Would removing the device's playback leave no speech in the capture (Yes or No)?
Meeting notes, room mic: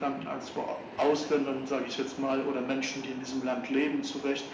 Yes